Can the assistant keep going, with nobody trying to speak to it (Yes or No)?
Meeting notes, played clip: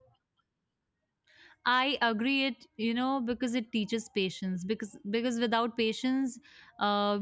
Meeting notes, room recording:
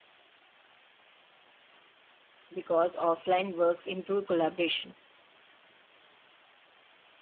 No